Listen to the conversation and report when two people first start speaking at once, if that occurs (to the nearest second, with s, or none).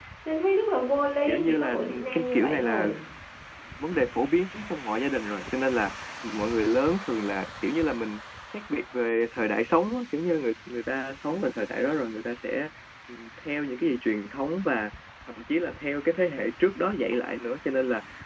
1 s